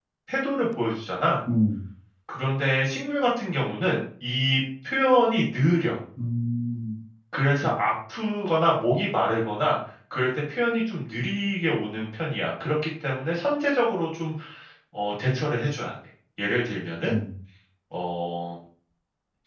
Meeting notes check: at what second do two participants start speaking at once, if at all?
none

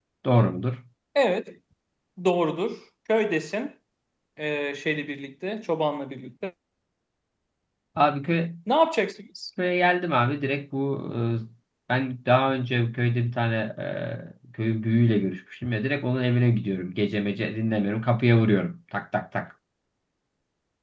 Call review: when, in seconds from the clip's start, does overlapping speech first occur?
none

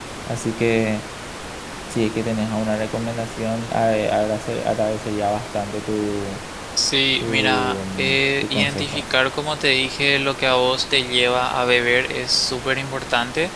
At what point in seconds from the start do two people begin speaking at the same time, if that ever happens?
7.2 s

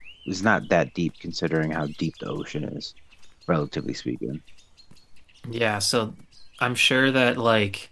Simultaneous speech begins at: none

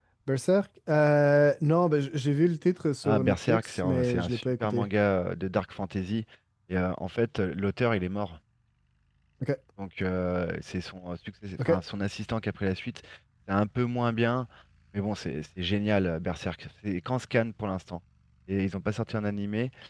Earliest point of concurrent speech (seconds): 3.0 s

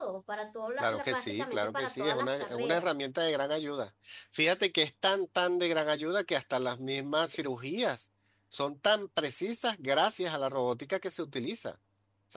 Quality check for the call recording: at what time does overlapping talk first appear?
0.8 s

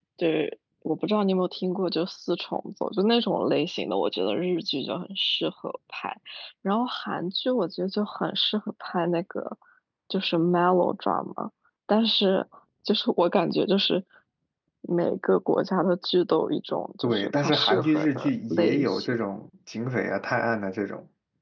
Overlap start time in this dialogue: 17.0 s

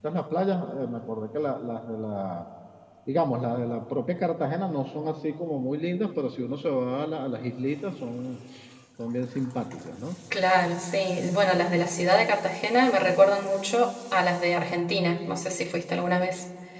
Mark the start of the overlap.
none

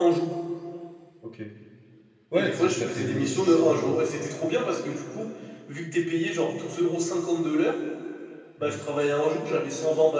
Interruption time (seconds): 2.3 s

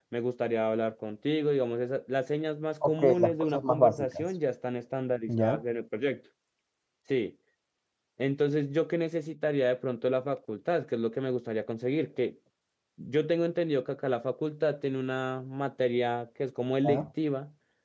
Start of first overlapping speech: 2.8 s

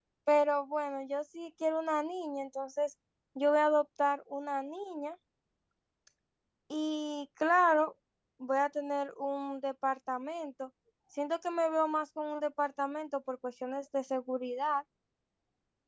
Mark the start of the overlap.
none

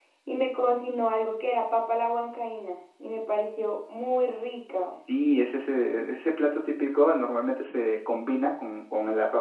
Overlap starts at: none

